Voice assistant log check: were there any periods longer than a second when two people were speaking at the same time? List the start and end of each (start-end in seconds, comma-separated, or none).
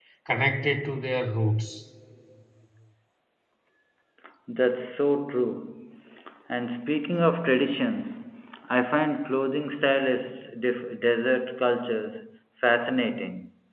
none